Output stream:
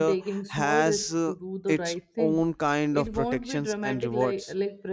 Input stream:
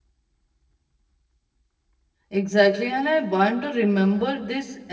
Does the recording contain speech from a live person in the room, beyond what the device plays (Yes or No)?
Yes